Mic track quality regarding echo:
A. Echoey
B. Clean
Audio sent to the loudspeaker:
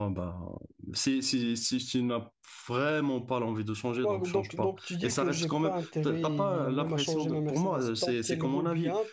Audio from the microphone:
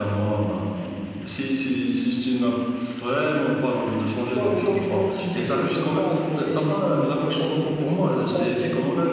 A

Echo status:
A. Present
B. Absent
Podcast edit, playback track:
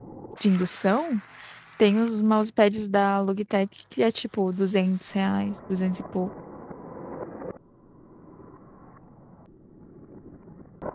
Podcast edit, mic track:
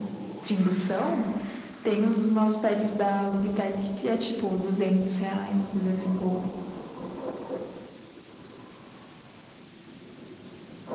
A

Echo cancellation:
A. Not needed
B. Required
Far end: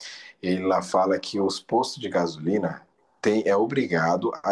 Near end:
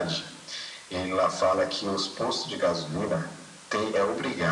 B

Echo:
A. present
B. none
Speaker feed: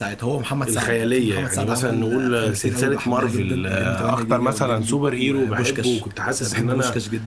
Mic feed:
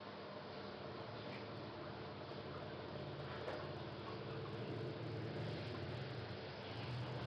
B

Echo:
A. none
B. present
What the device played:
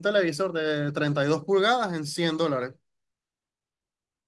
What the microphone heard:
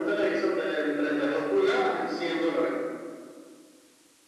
B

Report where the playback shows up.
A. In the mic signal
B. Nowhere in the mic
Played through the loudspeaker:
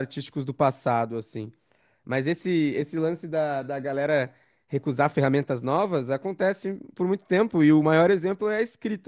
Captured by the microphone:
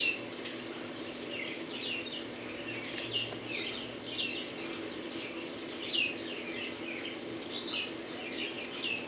B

